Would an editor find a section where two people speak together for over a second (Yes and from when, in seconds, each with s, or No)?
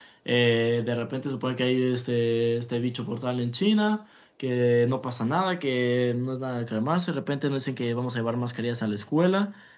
No